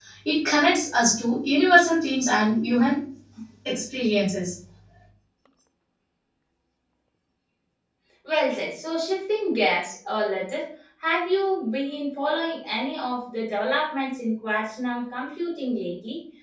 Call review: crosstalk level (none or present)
none